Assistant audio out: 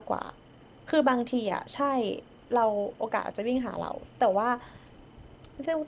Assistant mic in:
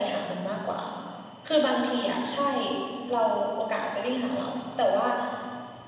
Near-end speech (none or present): none